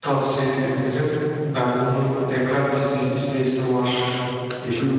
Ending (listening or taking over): taking over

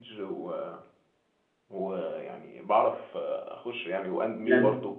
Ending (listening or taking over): taking over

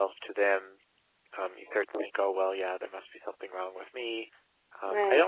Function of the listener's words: listening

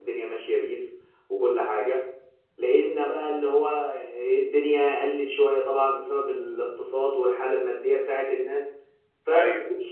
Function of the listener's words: listening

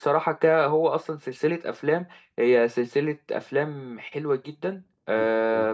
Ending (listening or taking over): listening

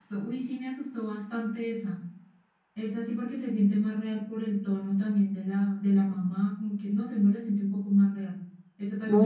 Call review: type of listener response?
taking over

